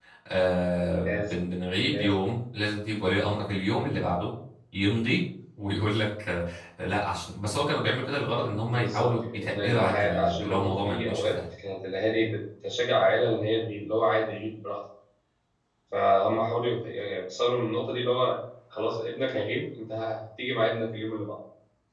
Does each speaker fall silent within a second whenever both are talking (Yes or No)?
No